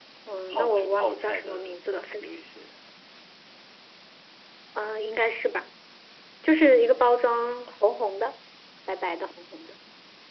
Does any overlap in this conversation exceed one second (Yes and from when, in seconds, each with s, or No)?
Yes, from 0.5 s